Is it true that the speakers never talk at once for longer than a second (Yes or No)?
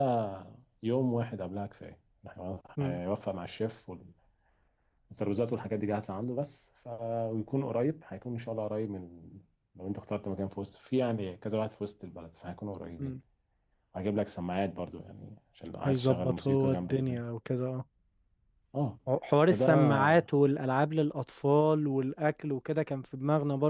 No